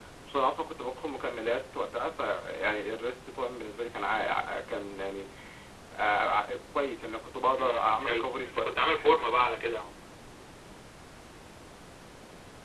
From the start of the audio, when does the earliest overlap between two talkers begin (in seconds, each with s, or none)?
7.5 s